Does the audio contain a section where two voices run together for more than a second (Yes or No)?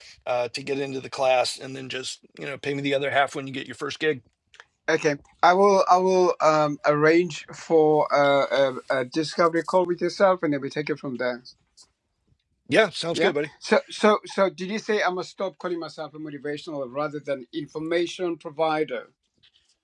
No